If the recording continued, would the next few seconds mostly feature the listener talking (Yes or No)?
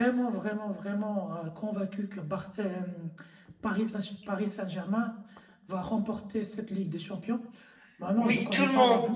Yes